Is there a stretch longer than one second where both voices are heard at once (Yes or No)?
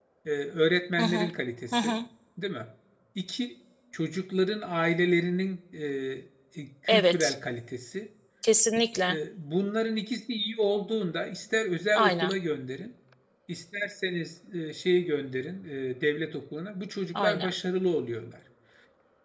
No